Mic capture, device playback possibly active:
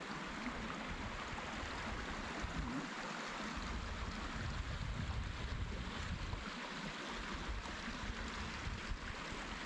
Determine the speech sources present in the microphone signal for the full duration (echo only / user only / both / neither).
neither